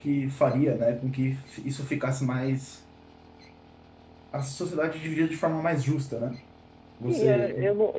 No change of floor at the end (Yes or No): No